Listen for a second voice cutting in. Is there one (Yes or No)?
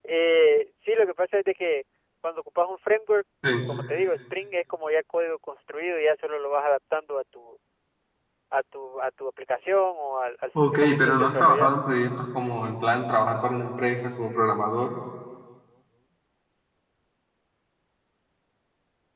Yes